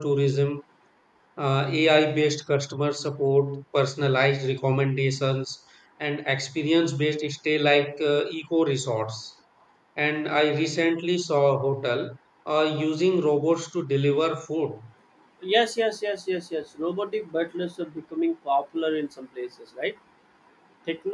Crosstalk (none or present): none